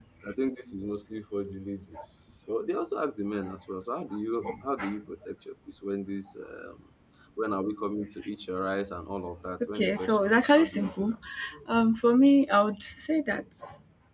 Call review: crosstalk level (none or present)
present